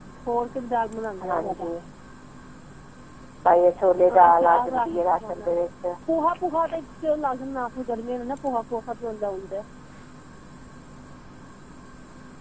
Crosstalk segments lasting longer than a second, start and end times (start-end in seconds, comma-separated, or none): 4.0-5.5